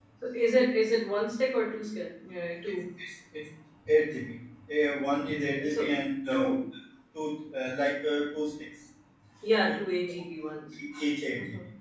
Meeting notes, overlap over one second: none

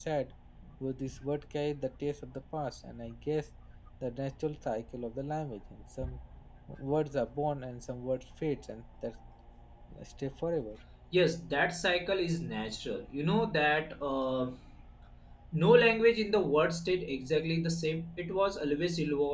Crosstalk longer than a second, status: none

